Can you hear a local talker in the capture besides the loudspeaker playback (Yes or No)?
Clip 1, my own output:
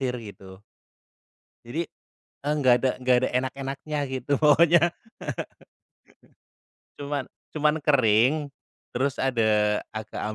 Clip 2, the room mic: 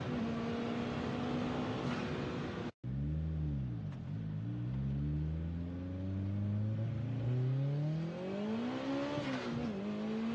No